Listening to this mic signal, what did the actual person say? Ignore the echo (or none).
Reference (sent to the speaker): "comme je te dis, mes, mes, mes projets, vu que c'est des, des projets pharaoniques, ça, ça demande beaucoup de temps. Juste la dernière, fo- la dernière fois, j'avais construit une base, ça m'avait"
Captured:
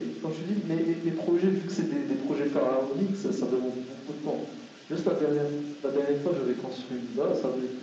none